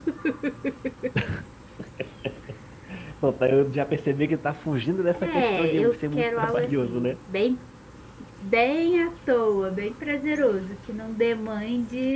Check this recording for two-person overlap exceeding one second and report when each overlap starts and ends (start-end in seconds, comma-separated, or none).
5.1-7.1